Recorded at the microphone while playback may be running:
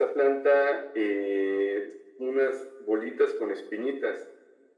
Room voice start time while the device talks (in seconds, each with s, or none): none